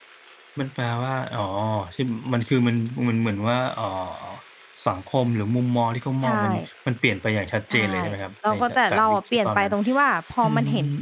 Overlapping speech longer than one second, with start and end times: 8.5-9.7

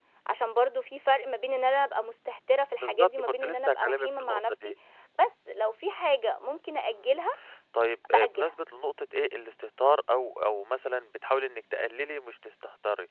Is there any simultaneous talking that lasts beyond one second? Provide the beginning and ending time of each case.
2.8-4.7

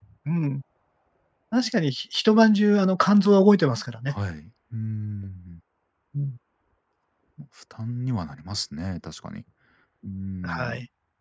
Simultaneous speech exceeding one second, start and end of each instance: none

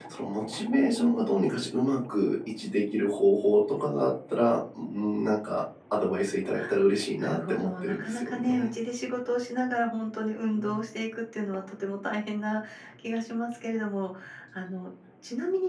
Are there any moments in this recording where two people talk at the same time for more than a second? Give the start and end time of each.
7.2-8.7

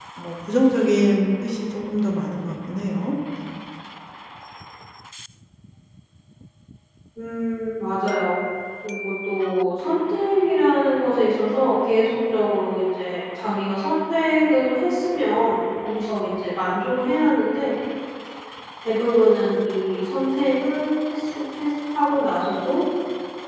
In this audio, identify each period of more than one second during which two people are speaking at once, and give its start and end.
none

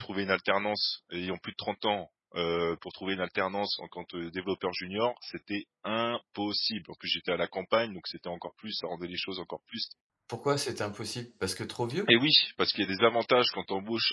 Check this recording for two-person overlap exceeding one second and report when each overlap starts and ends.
none

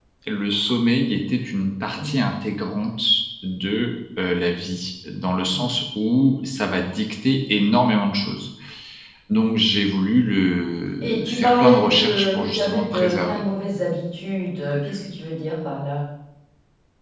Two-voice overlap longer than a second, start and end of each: 11.0-13.4

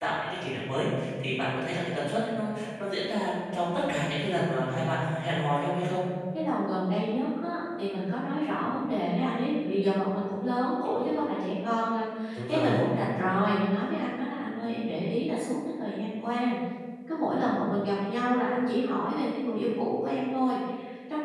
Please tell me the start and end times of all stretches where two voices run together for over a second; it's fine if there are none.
none

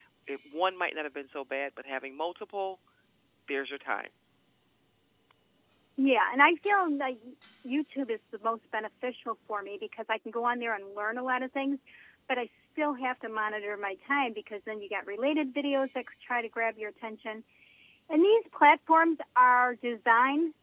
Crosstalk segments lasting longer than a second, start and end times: none

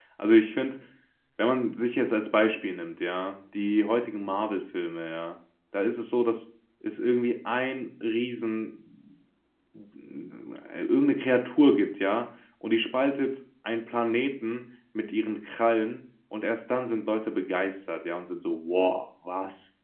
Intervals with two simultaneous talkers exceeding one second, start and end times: none

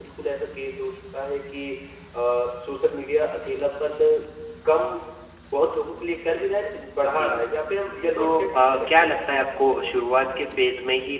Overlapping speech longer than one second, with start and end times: 8.2-9.5

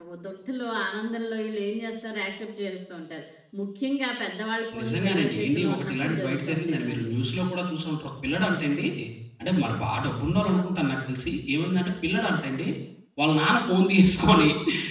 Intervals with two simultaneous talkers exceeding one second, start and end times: 4.8-7.1

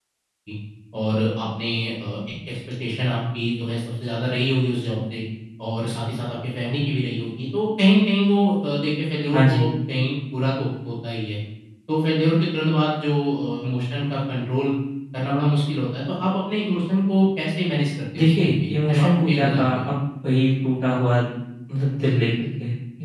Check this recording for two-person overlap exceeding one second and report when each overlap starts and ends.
18.2-19.9

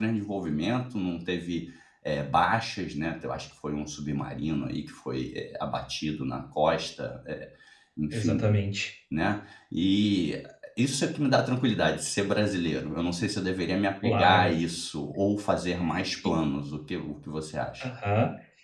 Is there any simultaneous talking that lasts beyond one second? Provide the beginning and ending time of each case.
none

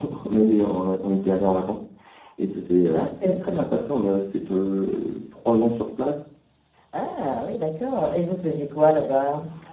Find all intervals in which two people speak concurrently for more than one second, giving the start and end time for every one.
none

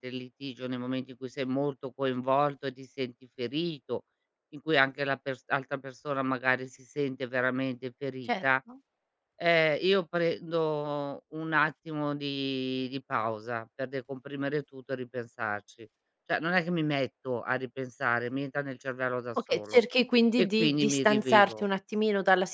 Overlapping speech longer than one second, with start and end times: 20.4-21.6

